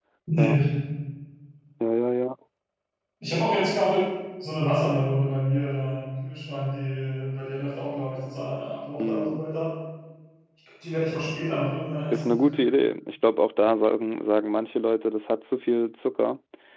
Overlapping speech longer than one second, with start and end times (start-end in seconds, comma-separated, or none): none